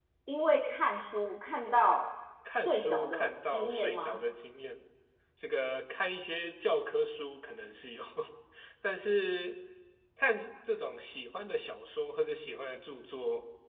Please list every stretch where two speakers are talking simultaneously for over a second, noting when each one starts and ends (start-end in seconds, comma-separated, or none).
2.5-4.2